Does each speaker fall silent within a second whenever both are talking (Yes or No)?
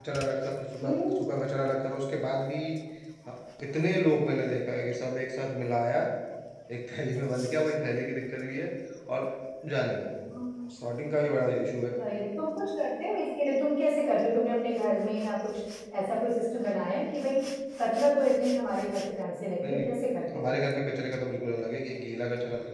Yes